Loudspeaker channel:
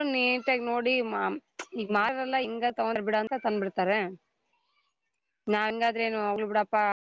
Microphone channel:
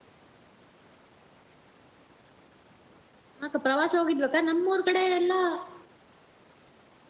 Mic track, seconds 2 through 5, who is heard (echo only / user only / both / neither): user only